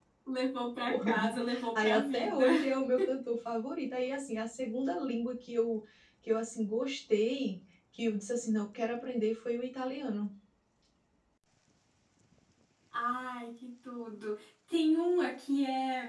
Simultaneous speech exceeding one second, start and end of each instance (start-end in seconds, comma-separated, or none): 0.9-2.5